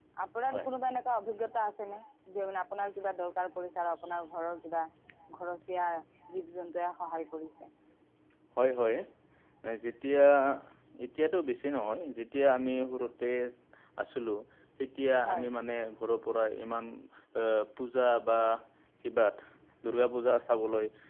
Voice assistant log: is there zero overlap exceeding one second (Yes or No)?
Yes